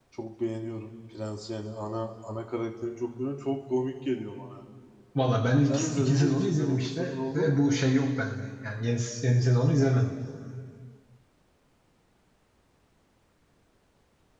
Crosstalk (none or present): present